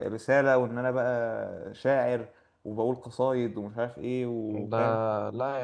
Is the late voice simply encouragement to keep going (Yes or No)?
No